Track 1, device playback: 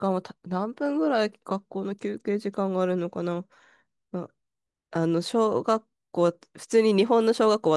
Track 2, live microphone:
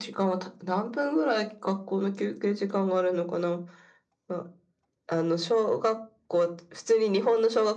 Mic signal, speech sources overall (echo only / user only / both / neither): echo only